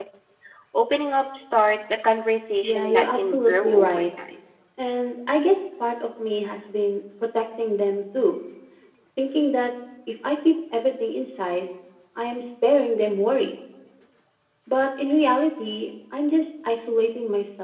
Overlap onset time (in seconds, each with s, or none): 2.6 s